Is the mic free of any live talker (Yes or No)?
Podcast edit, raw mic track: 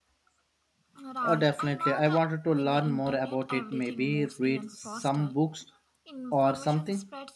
No